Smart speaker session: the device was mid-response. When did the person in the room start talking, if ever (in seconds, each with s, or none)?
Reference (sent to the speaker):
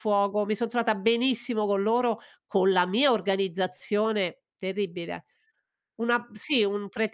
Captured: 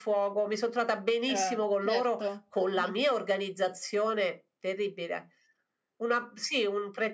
1.2 s